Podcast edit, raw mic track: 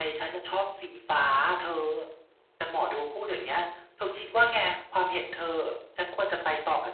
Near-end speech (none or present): present